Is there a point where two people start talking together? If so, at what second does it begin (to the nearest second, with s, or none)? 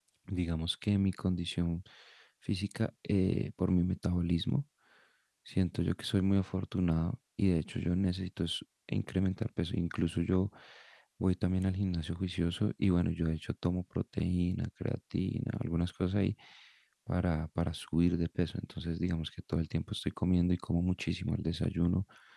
none